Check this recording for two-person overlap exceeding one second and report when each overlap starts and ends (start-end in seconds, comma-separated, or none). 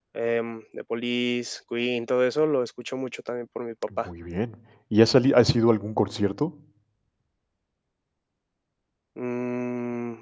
none